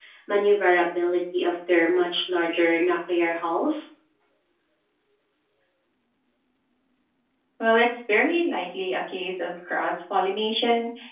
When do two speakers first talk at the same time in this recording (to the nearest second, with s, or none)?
none